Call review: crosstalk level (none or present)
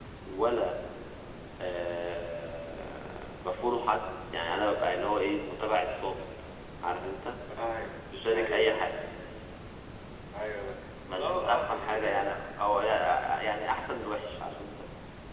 present